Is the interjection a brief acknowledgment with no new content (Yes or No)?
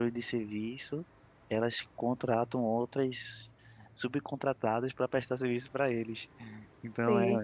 Yes